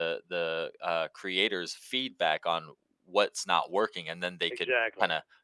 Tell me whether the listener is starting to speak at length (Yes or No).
No